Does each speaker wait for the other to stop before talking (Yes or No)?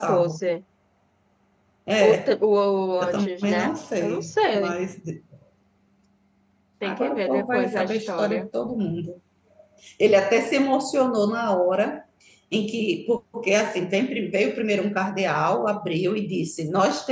No